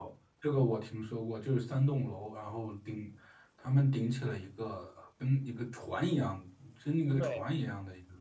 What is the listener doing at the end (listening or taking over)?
listening